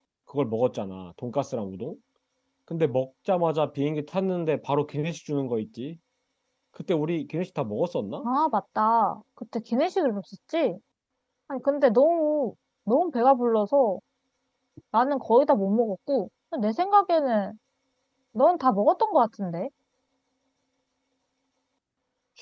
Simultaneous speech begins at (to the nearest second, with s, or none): none